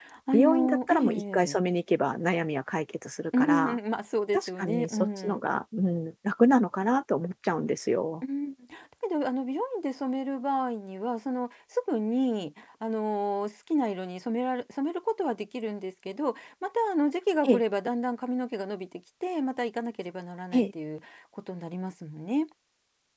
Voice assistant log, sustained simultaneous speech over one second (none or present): present